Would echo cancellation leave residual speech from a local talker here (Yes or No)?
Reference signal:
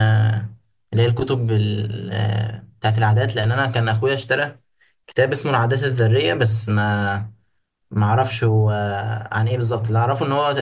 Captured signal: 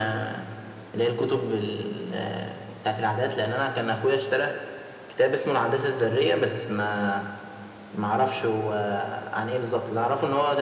No